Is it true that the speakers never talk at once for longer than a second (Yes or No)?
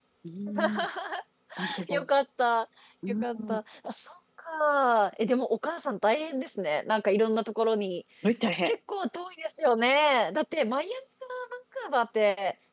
Yes